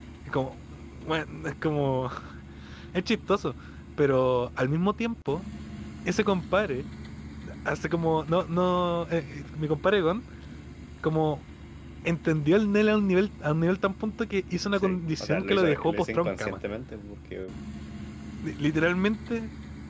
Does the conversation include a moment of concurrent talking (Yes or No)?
Yes